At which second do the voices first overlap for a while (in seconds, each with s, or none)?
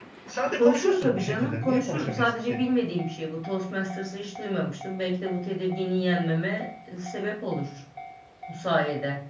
0.6 s